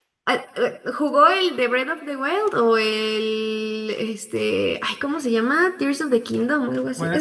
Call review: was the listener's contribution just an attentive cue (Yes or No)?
No